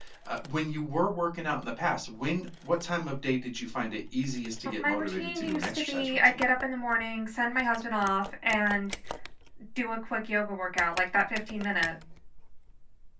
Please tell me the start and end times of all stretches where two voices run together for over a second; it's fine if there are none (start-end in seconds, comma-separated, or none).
4.8-6.4